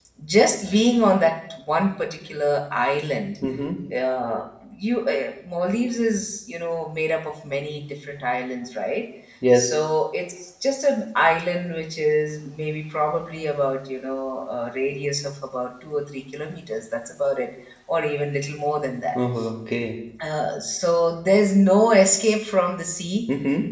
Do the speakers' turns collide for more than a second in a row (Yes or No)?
No